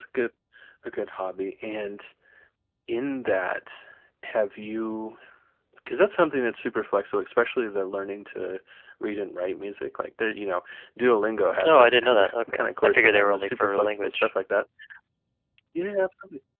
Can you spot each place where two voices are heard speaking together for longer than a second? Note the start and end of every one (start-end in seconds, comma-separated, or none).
11.6-14.3